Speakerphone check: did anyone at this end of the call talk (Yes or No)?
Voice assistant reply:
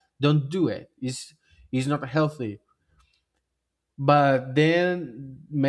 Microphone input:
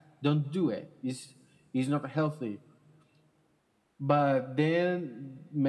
No